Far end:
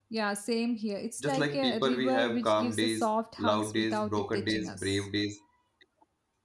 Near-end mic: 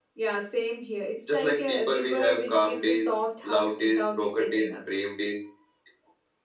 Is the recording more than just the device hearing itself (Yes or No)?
No